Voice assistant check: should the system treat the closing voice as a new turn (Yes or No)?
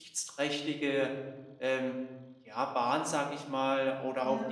No